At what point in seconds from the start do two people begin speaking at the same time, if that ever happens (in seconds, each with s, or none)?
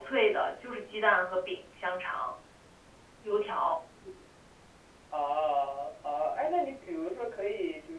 none